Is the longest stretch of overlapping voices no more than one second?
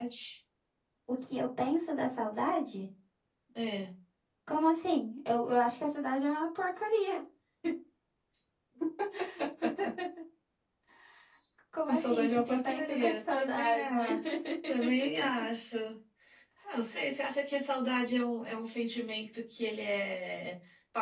No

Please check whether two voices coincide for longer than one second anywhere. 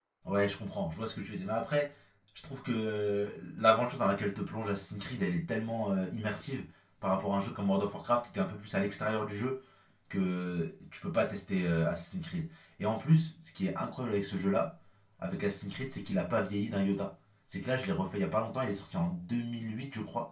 No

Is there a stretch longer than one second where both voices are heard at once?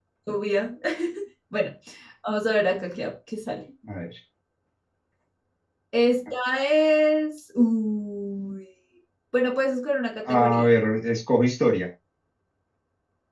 No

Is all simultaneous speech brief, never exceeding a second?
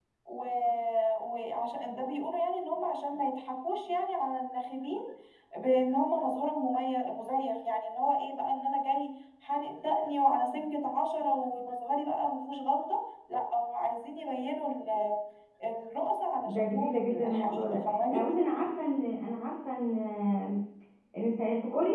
No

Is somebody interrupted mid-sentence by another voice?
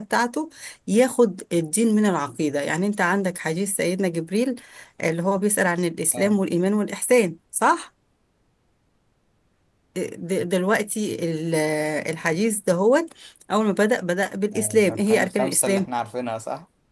Yes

